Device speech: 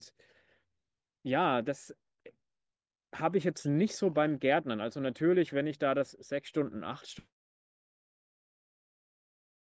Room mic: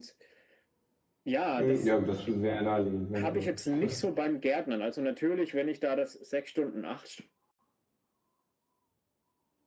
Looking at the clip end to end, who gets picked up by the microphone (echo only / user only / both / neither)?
both